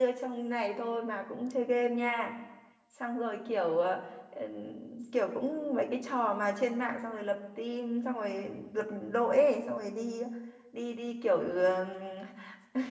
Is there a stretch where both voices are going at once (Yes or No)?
No